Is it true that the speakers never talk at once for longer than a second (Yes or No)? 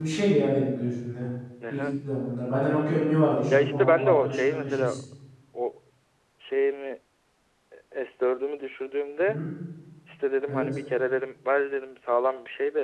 No